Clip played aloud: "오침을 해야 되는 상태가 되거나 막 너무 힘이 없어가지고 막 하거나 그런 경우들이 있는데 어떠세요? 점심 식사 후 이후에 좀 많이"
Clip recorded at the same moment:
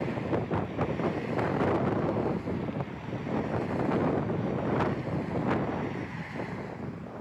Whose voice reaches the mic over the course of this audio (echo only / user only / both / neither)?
neither